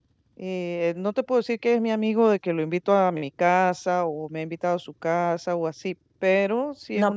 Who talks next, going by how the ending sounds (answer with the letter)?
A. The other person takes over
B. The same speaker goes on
A